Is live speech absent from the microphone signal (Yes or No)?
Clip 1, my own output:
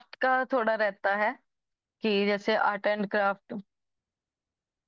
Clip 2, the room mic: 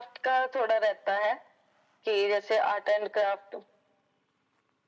Yes